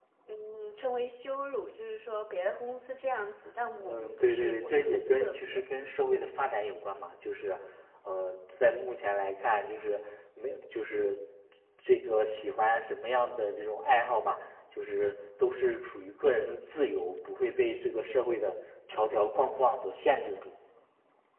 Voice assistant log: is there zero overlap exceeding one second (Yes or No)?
No